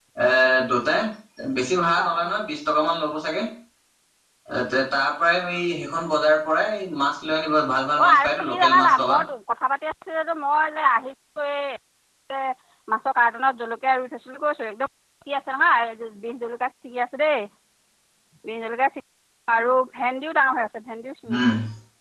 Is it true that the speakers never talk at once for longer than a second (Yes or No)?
No